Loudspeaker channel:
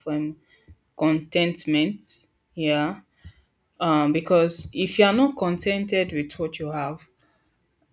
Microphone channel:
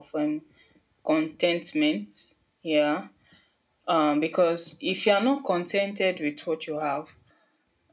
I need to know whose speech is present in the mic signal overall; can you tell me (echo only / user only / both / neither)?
echo only